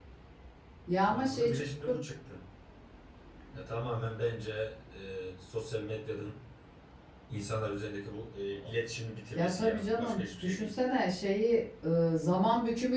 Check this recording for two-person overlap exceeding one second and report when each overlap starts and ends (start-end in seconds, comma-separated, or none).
9.4-10.7